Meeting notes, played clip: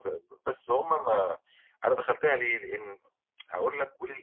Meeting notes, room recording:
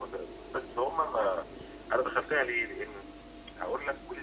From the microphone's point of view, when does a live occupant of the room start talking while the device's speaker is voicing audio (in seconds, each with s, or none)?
none